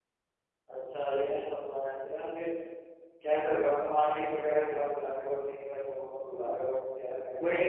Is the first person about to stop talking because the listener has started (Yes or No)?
Yes